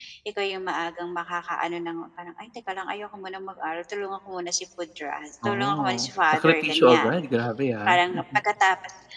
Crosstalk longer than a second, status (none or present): present